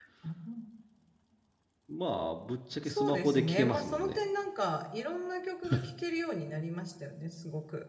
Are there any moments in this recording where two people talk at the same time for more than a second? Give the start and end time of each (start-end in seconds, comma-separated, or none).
2.9-4.2